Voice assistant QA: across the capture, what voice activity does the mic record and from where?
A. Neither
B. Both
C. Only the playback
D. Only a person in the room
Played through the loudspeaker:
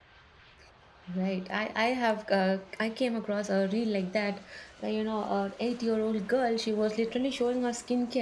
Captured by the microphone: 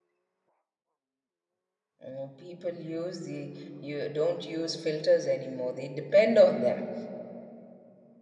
D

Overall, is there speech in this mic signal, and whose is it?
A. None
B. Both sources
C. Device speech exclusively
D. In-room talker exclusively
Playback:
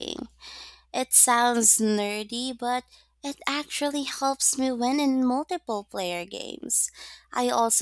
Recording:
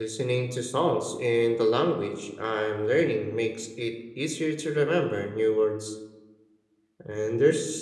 D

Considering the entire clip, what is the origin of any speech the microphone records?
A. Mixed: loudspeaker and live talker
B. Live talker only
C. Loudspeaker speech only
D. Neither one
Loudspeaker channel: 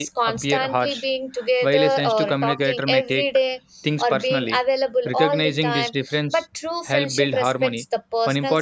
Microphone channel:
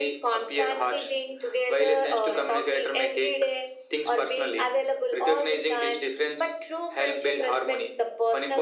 C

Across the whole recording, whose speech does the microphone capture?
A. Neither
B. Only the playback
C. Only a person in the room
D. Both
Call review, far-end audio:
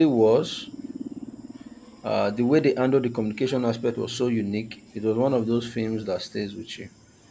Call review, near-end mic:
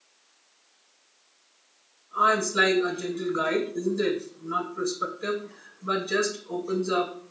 C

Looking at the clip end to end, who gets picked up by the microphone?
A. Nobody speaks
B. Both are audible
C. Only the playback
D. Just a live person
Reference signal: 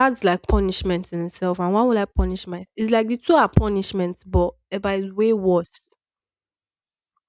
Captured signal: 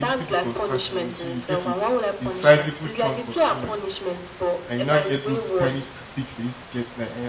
B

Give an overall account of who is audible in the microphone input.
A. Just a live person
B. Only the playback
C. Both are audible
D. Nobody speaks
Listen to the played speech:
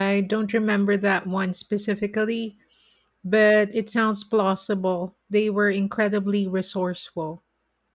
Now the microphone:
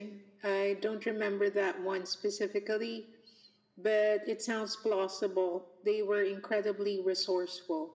B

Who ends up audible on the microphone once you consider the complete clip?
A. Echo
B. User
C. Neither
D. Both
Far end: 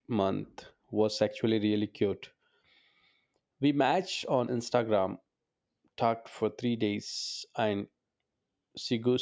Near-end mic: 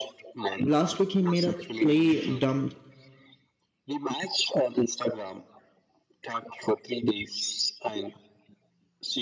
D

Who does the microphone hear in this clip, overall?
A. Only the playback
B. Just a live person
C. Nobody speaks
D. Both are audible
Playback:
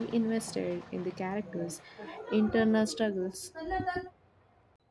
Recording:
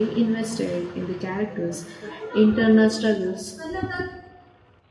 A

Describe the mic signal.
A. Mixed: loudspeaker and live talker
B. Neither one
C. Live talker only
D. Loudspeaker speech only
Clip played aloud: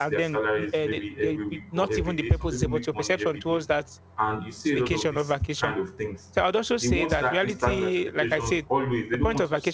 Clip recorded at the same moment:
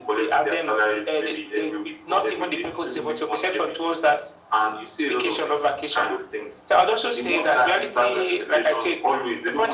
D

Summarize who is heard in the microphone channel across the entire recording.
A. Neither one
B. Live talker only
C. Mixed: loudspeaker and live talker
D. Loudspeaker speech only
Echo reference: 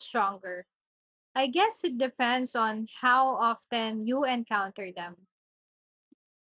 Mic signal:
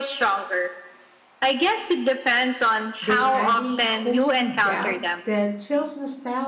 C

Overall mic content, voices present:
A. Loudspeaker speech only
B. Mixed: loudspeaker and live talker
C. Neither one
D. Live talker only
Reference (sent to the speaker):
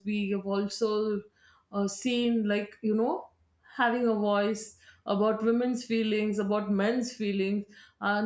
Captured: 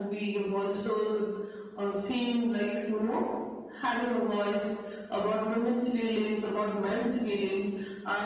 A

